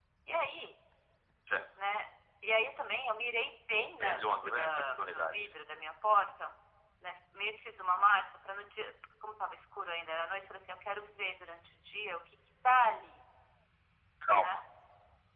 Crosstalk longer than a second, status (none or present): present